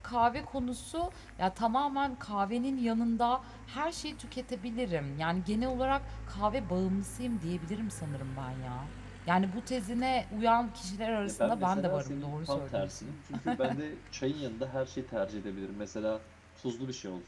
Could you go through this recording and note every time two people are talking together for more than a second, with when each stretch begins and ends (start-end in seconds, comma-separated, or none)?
11.2-13.2